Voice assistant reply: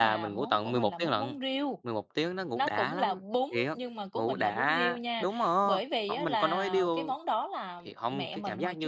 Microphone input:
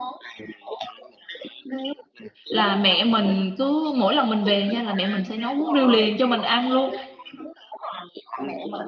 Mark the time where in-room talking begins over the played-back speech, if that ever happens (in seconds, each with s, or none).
2.5 s